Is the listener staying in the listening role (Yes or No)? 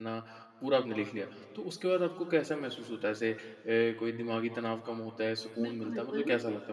No